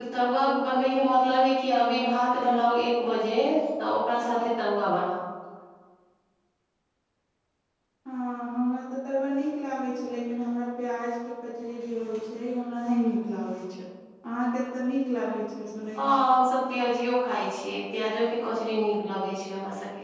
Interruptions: none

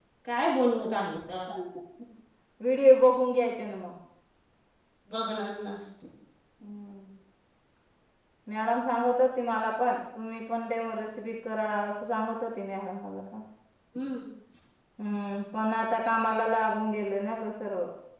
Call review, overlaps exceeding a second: none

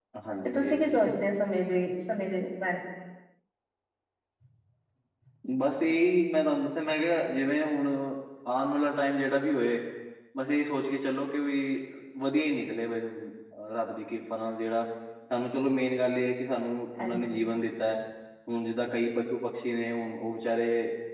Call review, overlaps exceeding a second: none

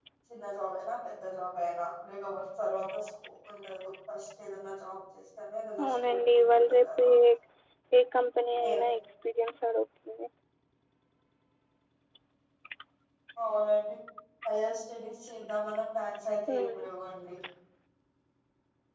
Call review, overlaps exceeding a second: present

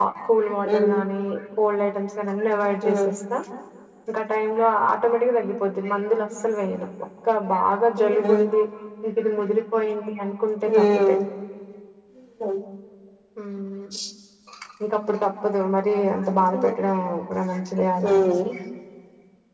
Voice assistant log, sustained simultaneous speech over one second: none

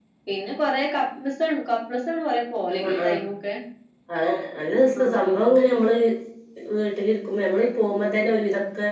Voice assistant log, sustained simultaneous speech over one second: none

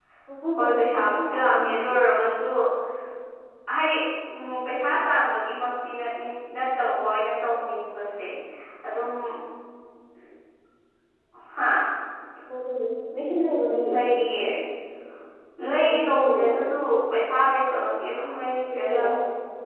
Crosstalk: present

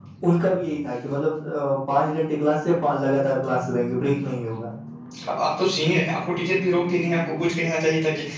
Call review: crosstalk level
none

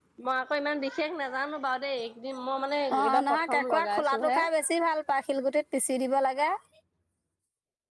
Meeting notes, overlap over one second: present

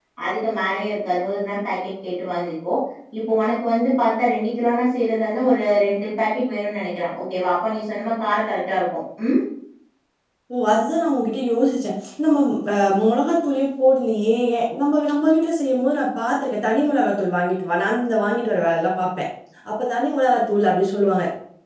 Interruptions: none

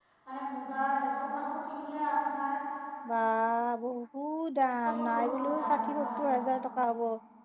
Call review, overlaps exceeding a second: present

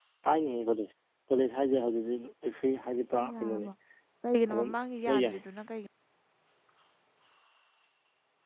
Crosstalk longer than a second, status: none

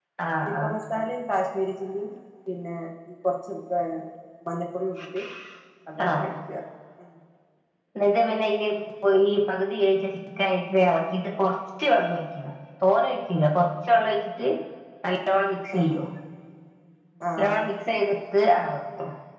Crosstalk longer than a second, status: none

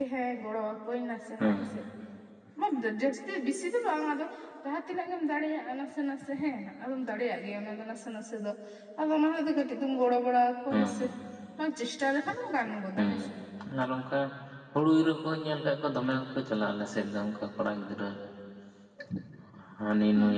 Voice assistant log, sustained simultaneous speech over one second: none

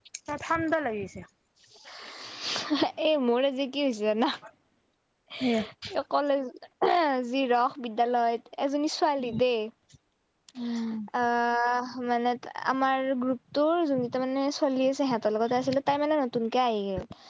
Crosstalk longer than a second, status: none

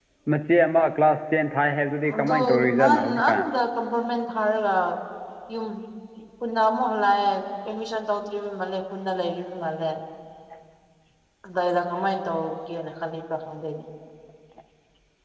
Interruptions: present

